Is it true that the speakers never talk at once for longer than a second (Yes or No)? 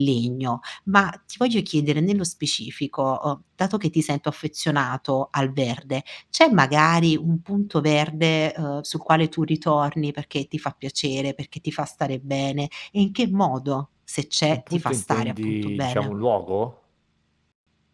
No